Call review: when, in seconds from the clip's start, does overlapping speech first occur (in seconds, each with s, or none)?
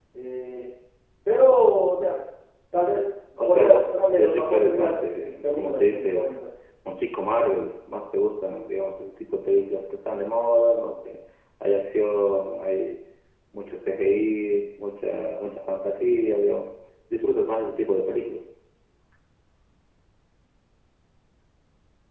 3.4 s